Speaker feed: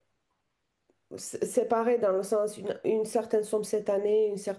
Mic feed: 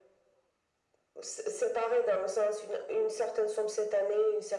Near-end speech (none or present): none